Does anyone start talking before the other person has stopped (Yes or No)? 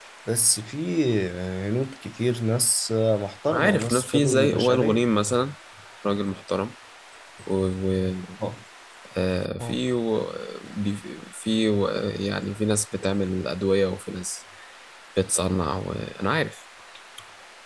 Yes